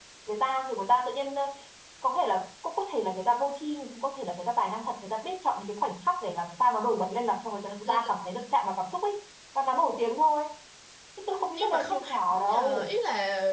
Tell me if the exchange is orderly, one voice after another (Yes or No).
No